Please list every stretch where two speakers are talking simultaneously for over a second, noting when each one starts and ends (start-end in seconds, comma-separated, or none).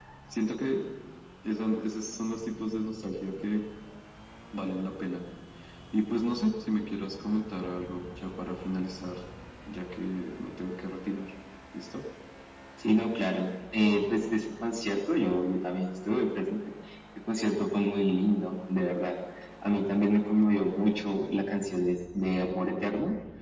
none